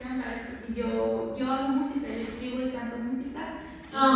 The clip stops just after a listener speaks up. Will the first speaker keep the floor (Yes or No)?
Yes